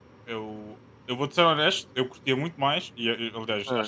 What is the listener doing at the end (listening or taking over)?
listening